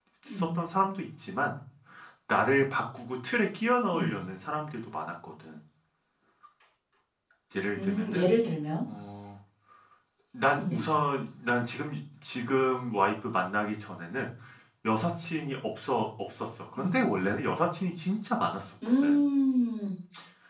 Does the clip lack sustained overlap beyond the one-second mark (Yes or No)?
Yes